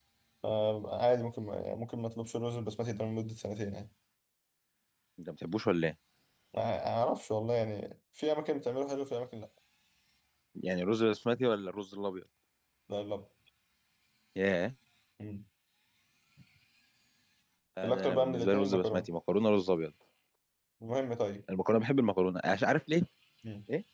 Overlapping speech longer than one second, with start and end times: 17.8-19.1

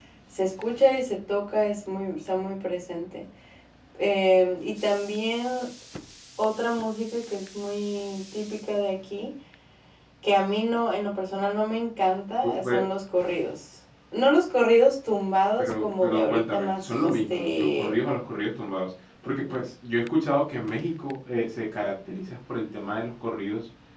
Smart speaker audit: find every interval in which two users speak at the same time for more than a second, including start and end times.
15.6-18.0

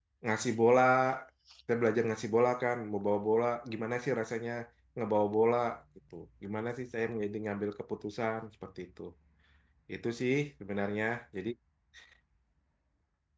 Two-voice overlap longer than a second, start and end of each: none

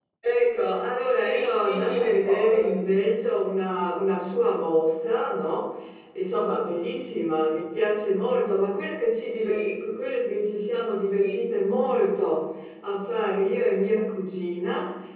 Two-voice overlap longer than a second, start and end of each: 1.1-2.7

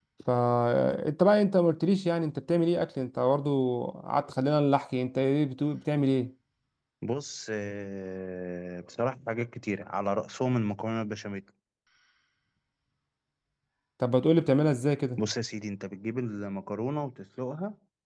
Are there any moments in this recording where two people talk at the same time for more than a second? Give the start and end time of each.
none

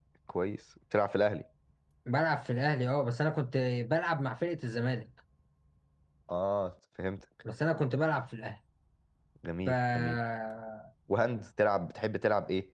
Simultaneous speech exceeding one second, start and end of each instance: none

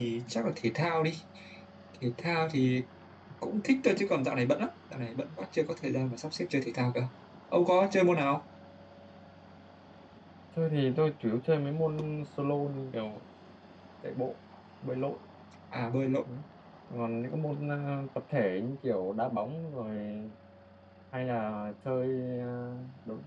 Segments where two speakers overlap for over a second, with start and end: none

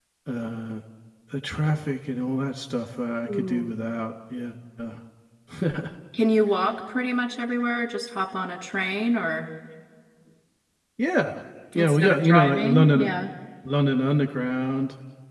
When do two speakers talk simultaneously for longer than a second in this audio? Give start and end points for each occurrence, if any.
11.8-13.2

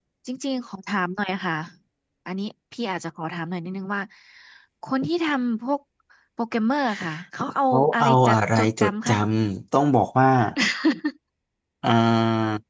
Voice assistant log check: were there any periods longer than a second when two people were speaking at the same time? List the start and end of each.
7.7-9.1

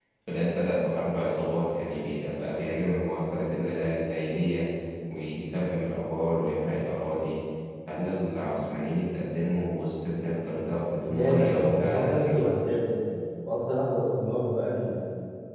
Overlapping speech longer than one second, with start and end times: 11.1-12.4

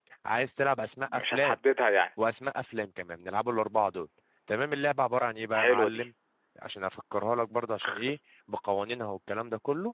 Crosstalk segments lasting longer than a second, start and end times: none

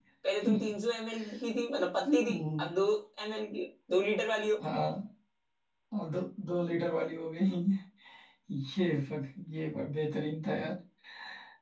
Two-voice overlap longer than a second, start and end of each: none

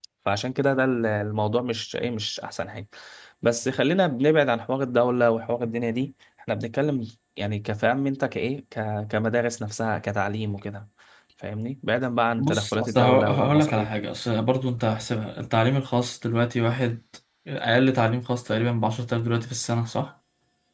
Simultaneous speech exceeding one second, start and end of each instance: 12.4-13.9

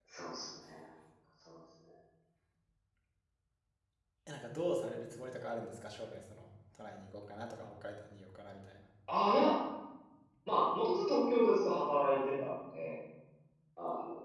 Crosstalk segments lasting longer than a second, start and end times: none

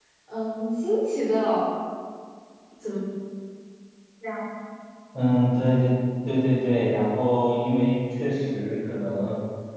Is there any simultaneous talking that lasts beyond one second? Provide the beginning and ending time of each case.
none

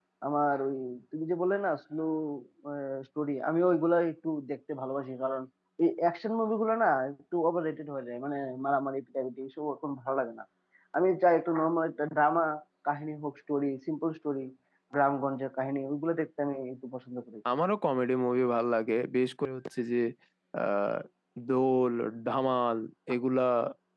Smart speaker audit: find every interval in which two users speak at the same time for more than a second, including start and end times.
none

